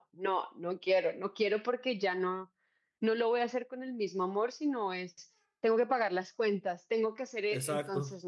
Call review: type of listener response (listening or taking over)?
listening